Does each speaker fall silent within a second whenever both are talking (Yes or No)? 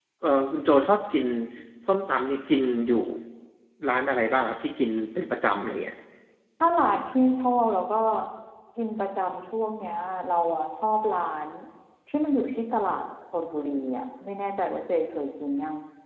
Yes